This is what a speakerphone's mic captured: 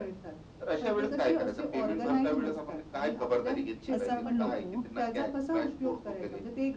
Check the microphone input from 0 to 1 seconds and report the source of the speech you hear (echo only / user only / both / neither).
echo only